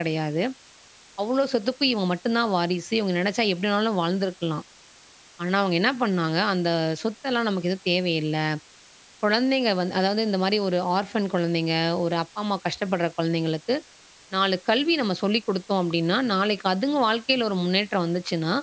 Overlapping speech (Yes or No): No